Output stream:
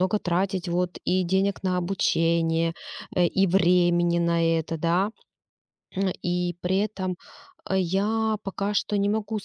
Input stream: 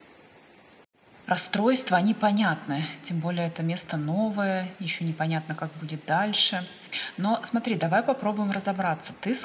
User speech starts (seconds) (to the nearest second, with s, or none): 1 s